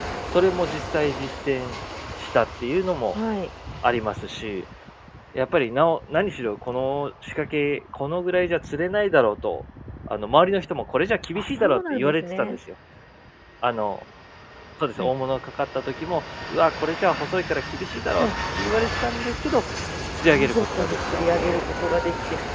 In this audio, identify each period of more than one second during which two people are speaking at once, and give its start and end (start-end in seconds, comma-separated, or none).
11.3-12.6, 20.3-21.7